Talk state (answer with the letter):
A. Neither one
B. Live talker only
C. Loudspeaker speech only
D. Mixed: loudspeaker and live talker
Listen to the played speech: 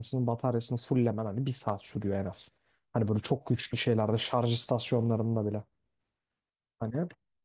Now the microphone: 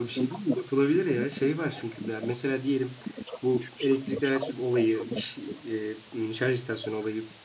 D